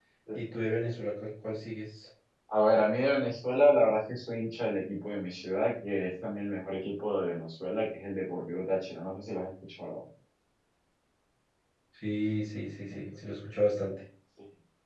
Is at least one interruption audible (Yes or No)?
No